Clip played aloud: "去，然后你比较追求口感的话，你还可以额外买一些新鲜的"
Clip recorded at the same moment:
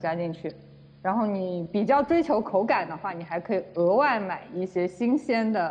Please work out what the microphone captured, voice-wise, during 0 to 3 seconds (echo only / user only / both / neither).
echo only